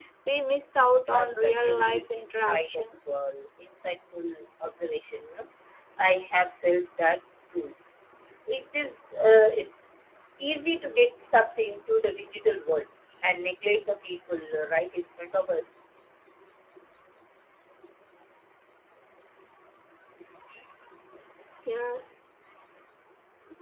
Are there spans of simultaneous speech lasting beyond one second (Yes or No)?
Yes